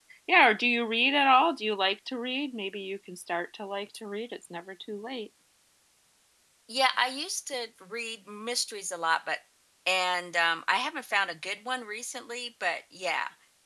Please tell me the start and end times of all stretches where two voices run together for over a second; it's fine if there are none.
none

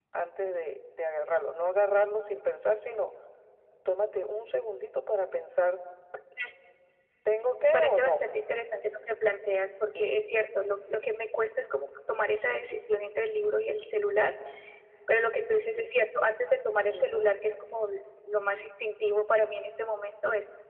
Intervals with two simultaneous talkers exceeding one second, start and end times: none

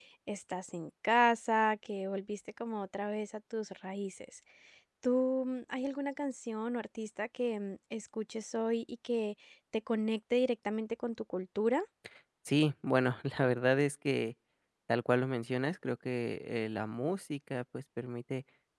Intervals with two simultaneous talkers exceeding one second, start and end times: none

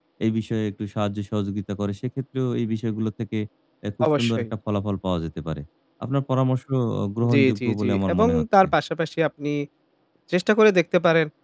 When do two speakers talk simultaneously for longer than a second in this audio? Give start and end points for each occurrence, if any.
7.3-8.7

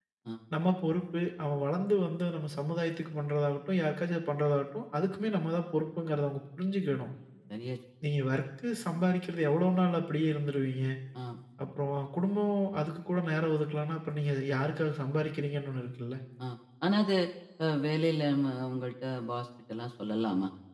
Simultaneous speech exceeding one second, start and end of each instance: none

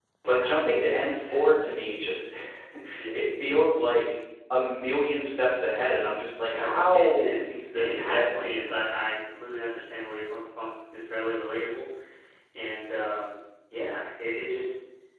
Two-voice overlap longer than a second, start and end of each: 6.5-8.7

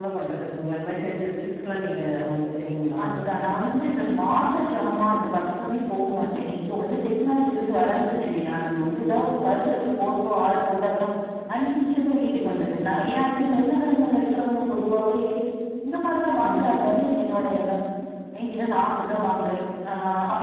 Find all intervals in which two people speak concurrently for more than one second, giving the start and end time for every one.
none

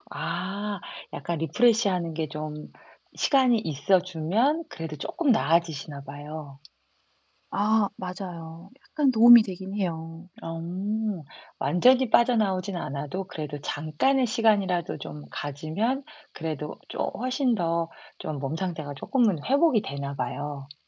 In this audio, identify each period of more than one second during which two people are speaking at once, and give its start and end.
none

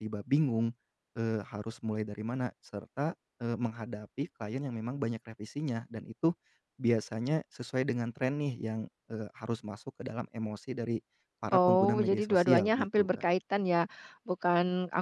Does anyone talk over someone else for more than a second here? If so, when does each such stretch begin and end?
11.5-13.2

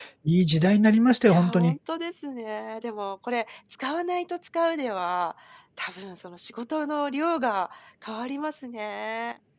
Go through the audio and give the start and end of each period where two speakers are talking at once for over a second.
none

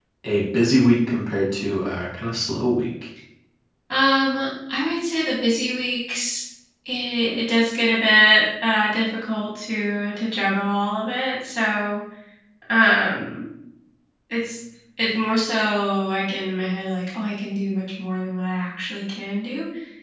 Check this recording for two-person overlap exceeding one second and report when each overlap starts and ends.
none

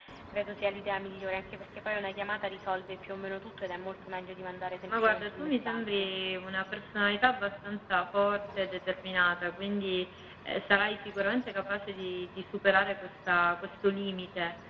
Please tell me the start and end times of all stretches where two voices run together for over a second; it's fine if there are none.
4.9-6.1

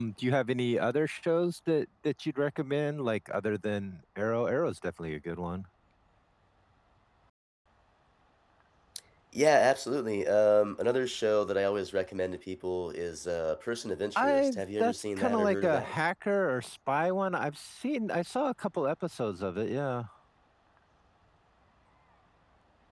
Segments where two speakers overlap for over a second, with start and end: 14.2-15.9

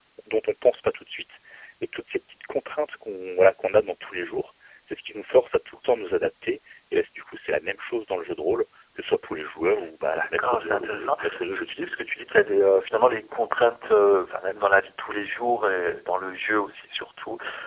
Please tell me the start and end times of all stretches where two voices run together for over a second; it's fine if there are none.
10.0-11.7

